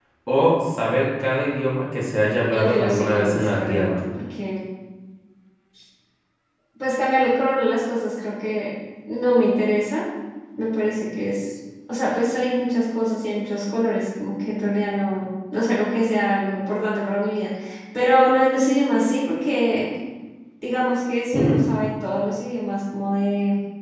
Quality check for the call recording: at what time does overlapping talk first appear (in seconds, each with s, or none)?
2.5 s